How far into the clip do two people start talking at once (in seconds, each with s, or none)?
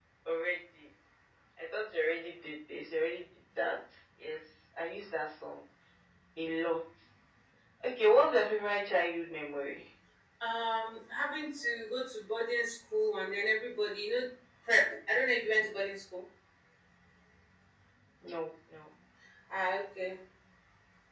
none